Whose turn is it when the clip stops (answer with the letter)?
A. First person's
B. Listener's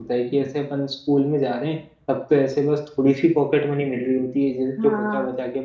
A